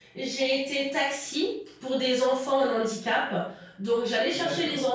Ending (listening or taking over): listening